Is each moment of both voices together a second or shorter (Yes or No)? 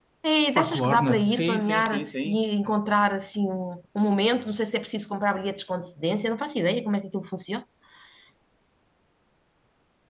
No